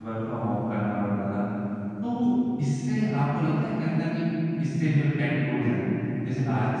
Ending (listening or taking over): listening